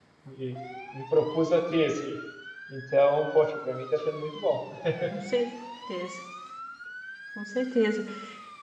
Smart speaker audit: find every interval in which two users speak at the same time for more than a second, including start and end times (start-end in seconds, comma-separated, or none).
none